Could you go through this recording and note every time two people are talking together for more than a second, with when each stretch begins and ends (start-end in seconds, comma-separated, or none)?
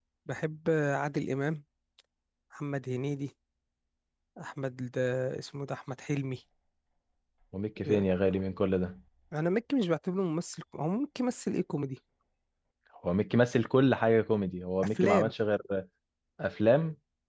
none